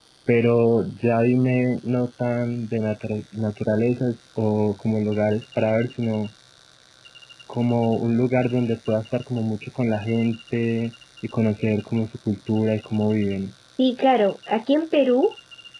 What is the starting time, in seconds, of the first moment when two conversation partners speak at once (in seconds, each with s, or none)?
none